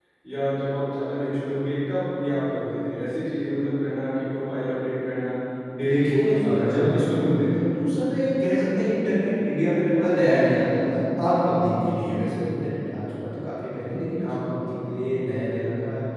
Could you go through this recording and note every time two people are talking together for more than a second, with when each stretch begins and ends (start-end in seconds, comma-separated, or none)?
5.8-7.7